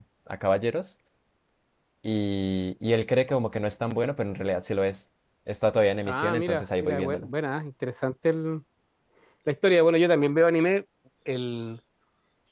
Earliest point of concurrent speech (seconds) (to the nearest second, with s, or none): 6 s